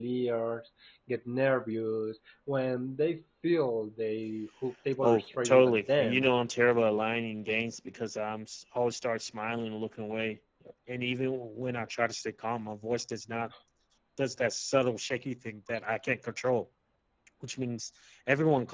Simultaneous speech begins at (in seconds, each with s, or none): 5.0 s